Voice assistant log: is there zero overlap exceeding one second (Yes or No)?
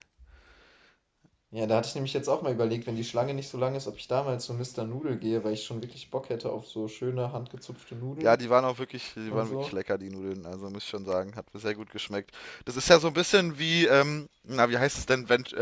Yes